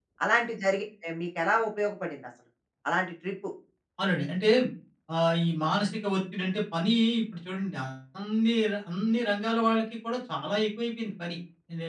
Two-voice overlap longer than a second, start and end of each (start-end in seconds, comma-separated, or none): none